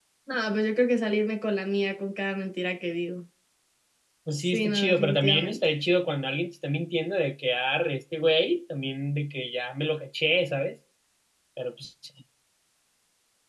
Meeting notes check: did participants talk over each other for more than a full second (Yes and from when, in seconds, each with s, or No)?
Yes, from 4.4 s